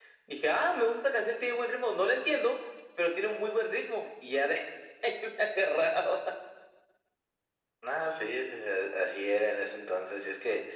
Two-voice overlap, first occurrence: none

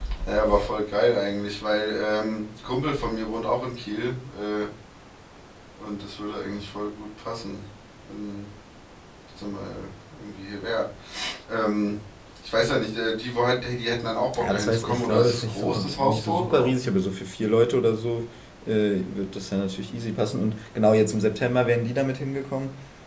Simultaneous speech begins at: 14.3 s

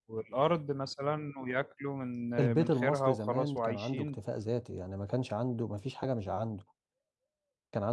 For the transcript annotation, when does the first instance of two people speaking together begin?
2.4 s

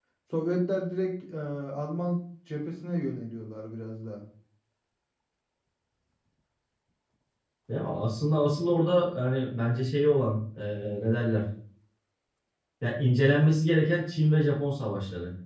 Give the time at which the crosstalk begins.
none

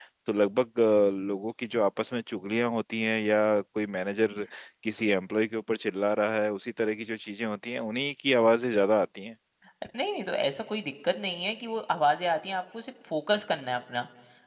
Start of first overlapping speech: none

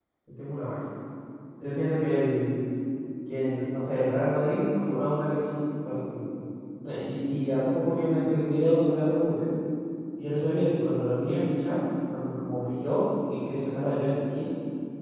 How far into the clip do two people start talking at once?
none

